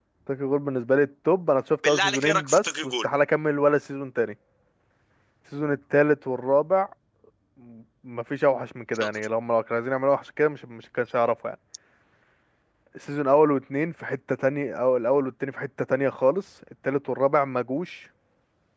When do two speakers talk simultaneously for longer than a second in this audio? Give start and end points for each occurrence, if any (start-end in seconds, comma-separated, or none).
1.9-3.1